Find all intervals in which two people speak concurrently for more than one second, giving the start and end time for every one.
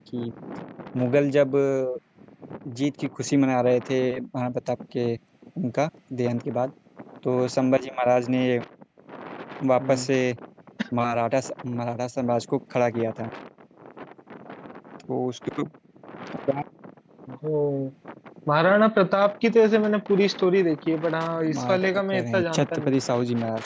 21.5-23.0

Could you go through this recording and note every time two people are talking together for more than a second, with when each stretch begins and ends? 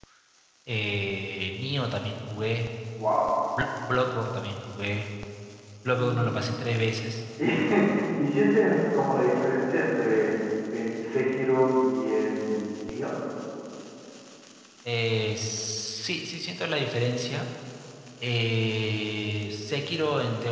none

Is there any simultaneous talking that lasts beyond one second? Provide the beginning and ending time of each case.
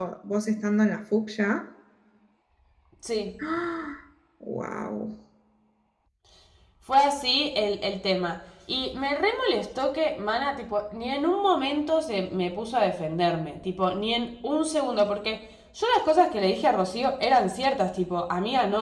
none

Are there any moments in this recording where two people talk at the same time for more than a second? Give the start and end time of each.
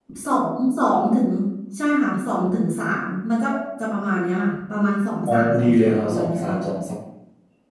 5.3-6.6

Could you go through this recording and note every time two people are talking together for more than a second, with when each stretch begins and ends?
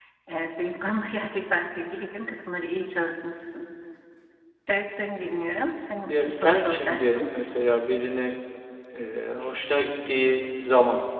6.1-7.3

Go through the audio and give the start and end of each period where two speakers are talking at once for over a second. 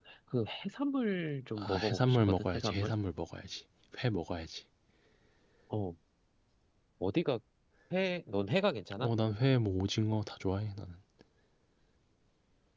1.6-2.9

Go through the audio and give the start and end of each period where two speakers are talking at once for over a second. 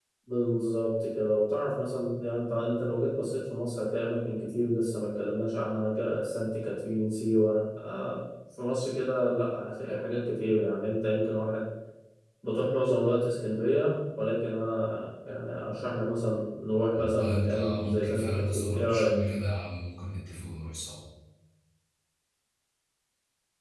16.9-19.1

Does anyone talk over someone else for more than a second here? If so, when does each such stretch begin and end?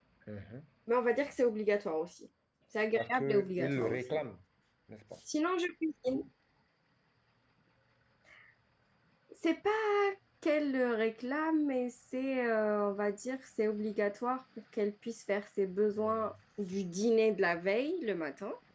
2.9-4.2

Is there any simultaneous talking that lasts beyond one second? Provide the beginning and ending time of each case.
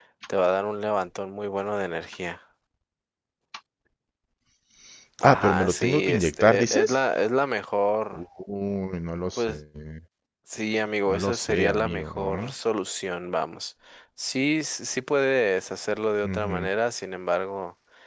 5.2-7.0, 11.1-12.5

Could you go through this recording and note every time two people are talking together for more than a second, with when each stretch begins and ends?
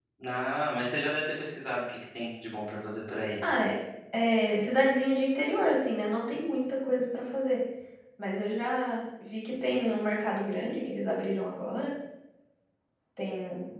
none

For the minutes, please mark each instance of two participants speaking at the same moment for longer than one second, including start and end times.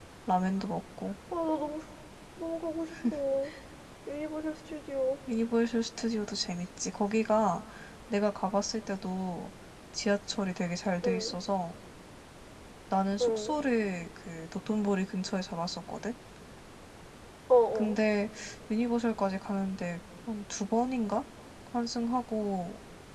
none

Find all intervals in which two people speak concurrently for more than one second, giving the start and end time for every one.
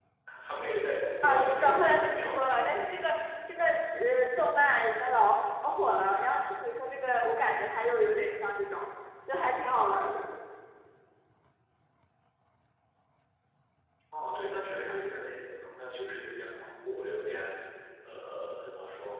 1.2-2.7

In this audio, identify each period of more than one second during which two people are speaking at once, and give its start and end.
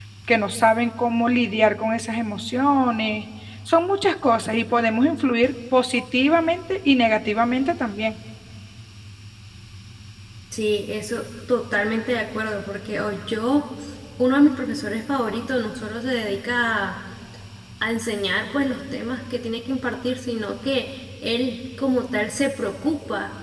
none

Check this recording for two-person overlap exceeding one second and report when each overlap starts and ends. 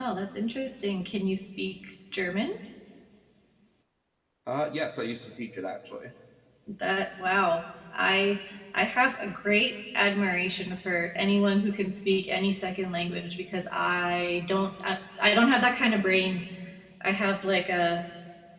none

